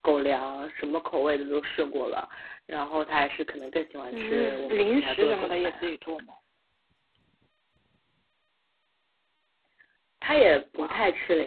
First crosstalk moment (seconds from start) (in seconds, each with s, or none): 4.1 s